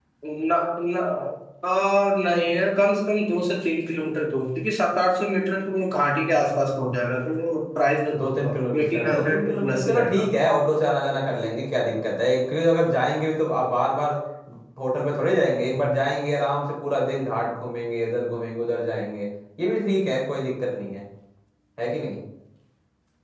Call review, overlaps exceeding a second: present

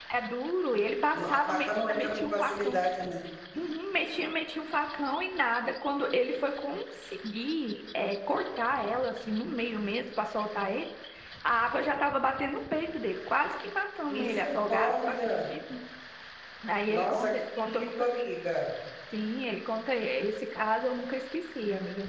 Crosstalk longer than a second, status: present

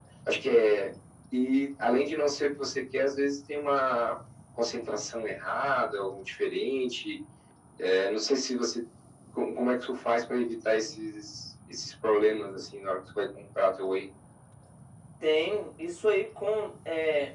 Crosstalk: none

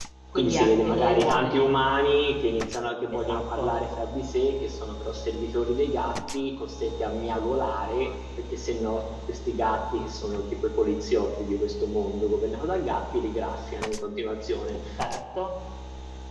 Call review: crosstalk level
present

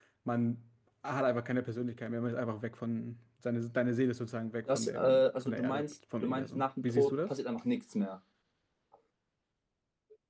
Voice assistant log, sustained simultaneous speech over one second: present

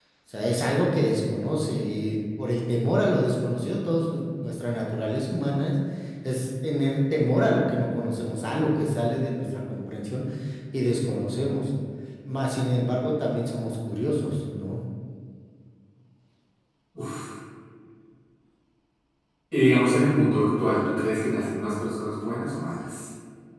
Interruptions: none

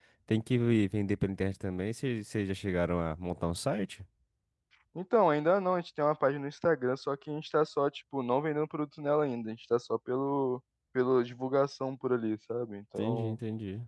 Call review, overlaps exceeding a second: none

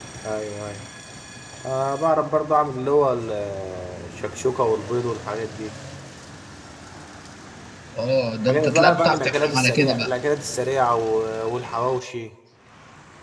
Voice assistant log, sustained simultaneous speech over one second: present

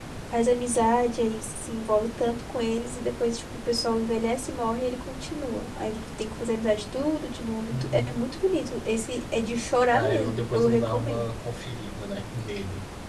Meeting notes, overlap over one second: present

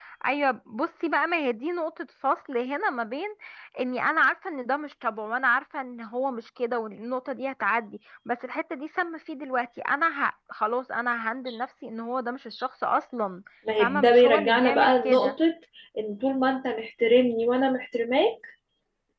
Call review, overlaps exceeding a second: present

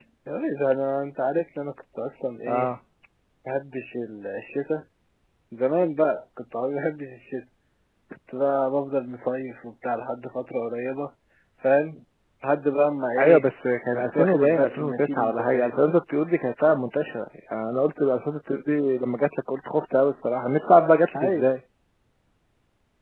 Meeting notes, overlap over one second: present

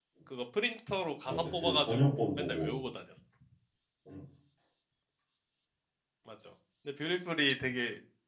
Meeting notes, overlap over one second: present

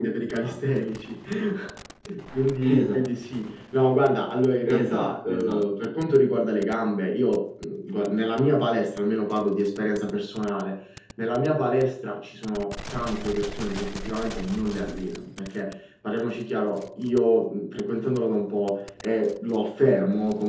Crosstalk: present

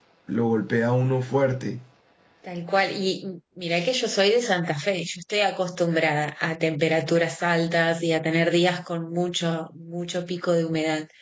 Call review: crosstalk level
none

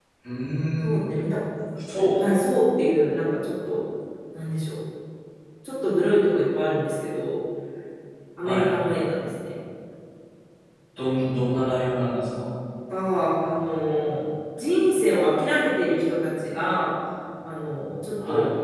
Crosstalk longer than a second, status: none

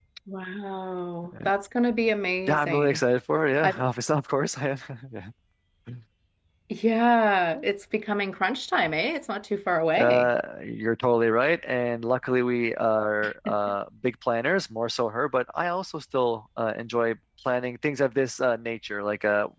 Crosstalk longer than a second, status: none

